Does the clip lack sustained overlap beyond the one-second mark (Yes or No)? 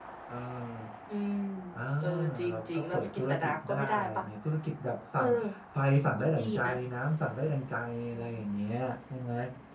No